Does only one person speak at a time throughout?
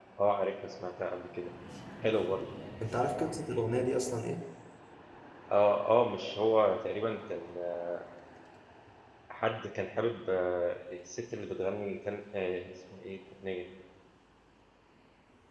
Yes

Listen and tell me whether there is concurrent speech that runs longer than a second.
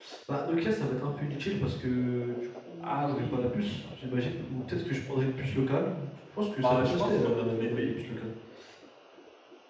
Yes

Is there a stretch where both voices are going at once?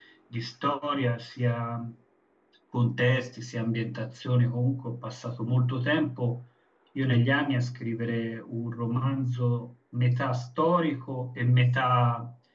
No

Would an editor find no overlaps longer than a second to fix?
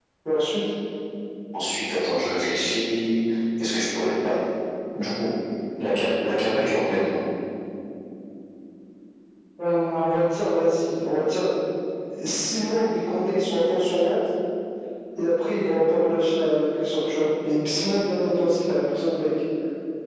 Yes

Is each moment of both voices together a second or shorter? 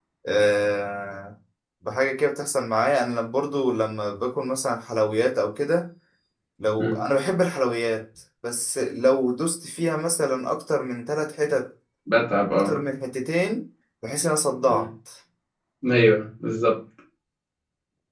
Yes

